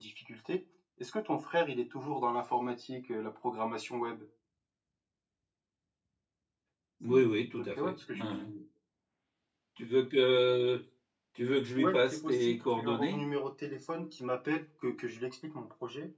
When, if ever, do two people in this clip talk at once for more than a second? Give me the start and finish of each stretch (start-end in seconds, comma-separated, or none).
7.1-8.4, 11.8-13.2